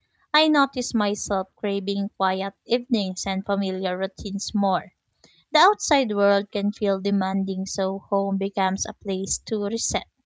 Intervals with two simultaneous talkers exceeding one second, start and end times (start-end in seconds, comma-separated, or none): none